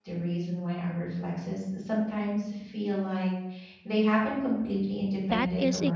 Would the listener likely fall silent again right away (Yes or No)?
No